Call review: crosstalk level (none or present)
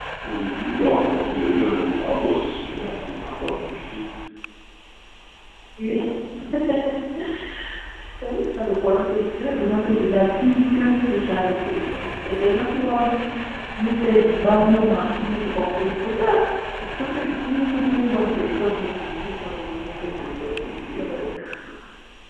none